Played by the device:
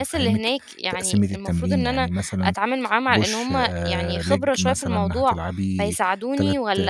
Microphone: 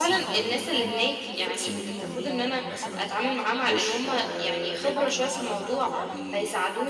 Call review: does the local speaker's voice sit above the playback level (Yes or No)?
No